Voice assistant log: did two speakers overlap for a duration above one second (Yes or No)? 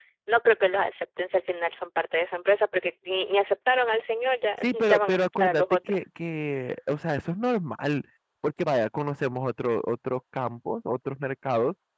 Yes